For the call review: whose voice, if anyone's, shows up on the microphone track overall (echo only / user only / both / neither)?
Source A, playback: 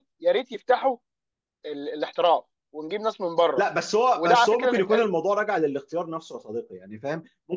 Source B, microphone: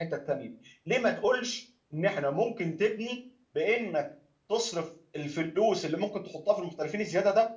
user only